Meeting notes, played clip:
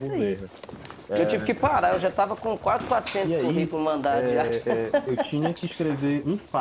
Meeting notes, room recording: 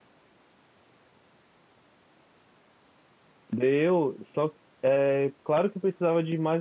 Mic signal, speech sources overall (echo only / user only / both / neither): user only